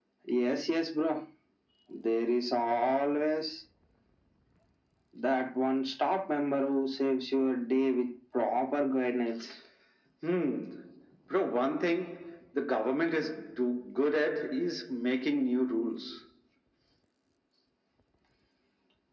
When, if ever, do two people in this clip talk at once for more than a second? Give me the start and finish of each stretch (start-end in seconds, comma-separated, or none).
none